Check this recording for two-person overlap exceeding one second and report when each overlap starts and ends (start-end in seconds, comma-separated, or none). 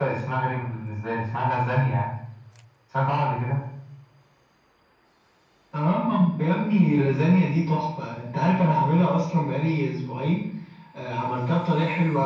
none